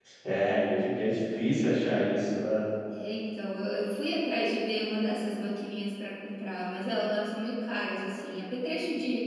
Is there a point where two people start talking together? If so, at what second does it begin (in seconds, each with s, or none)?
none